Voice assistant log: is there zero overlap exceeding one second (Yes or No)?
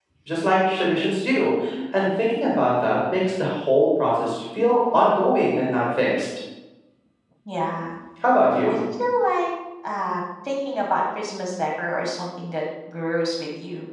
Yes